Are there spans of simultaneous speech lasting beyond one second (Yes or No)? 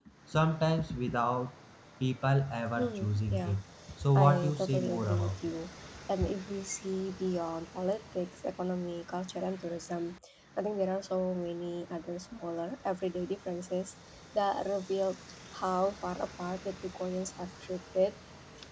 Yes